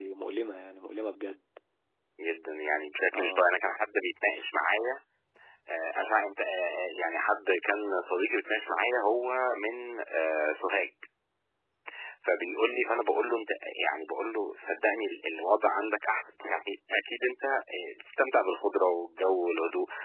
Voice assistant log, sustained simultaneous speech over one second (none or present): none